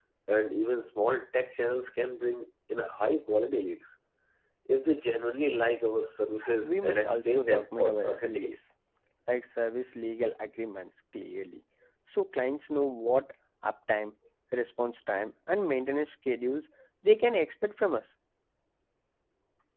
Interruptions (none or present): present